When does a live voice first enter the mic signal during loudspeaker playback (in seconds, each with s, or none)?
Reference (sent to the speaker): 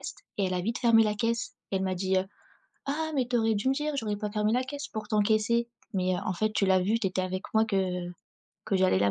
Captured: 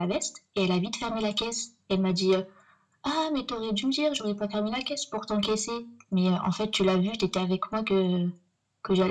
none